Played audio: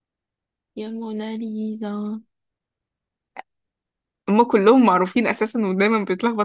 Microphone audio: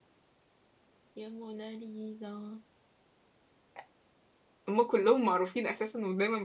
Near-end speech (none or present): none